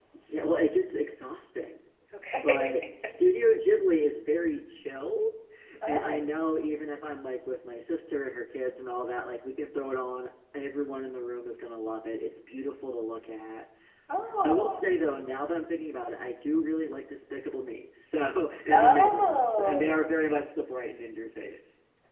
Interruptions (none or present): present